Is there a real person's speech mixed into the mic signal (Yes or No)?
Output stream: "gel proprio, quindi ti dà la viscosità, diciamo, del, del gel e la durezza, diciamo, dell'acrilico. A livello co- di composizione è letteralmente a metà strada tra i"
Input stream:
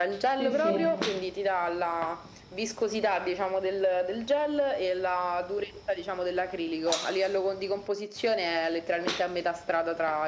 Yes